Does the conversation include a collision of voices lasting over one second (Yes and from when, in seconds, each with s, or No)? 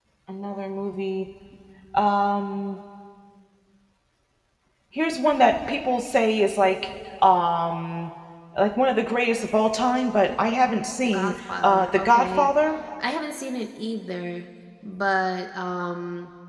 Yes, from 11.0 s